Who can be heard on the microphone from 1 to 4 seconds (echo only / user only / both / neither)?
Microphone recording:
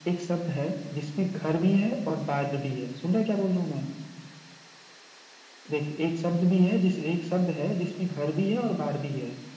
echo only